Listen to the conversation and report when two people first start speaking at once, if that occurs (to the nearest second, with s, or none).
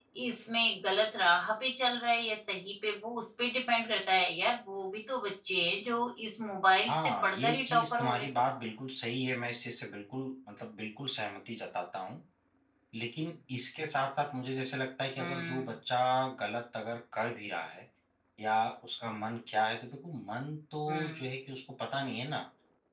7 s